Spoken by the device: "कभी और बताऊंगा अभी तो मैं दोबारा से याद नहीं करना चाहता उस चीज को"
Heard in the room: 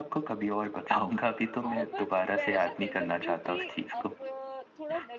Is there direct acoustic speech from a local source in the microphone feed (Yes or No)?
Yes